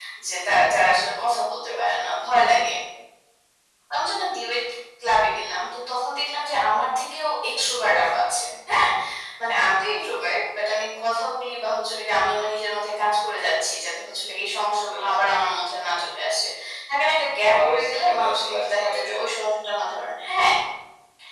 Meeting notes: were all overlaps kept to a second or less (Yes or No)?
No